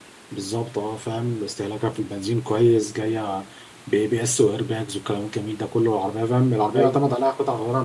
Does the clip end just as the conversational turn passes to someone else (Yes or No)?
No